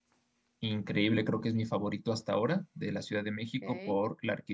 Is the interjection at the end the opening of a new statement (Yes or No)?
No